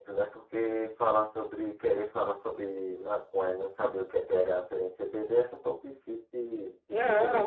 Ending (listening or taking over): taking over